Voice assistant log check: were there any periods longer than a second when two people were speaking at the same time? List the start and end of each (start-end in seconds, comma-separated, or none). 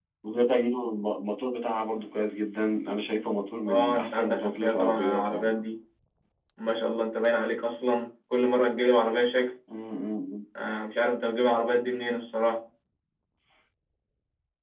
3.6-5.5